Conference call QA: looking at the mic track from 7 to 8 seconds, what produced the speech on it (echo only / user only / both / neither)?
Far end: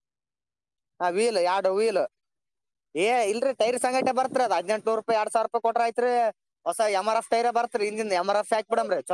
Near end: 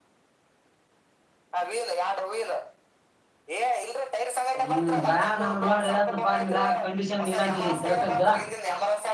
both